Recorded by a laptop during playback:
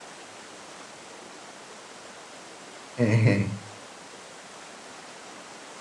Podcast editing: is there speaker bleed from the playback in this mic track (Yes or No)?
No